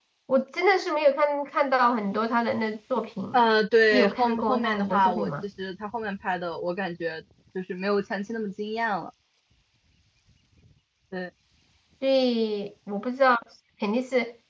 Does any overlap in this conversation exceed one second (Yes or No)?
Yes